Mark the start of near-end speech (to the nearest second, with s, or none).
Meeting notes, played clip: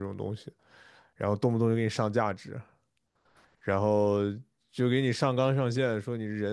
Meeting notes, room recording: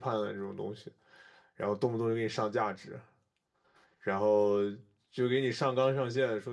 none